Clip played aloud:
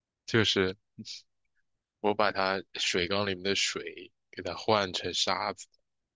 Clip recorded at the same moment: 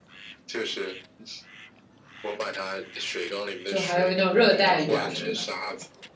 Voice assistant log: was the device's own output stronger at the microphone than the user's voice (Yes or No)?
No